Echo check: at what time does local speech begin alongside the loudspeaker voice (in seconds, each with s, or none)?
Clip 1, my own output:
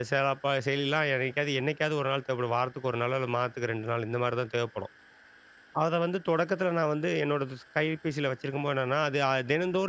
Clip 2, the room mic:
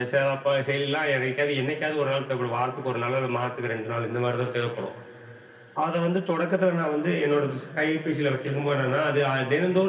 none